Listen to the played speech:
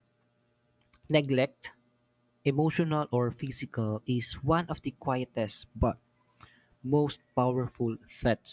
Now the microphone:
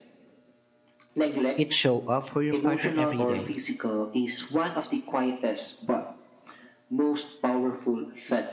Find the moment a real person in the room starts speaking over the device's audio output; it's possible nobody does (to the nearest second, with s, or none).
2 s